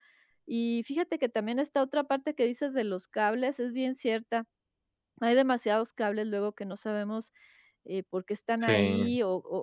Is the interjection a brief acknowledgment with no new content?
Yes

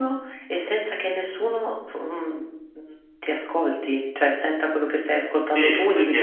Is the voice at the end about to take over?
Yes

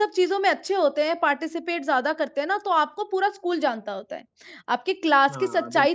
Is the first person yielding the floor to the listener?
No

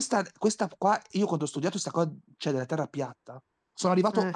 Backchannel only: Yes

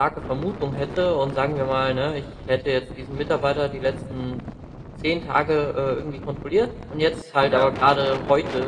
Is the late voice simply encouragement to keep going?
Yes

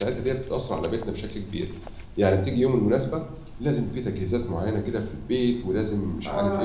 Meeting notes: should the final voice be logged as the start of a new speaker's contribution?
No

